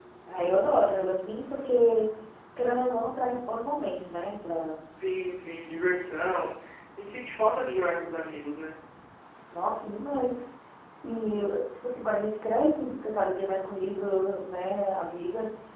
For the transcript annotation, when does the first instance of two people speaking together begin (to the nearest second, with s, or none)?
none